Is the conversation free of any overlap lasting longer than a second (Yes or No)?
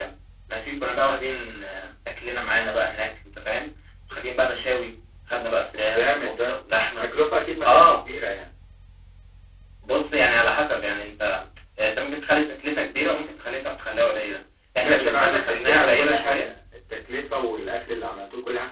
No